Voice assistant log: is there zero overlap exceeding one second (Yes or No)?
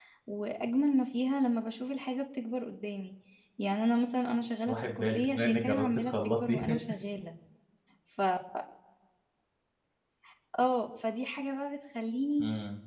No